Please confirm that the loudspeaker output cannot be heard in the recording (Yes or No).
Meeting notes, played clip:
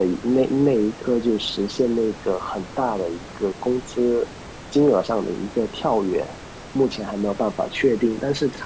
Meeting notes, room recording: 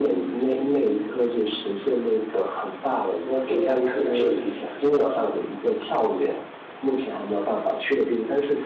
No